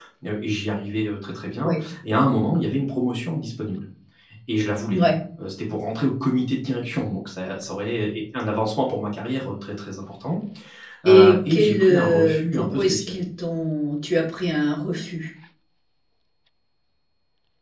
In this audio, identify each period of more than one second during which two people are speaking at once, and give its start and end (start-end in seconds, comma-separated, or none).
11.0-13.2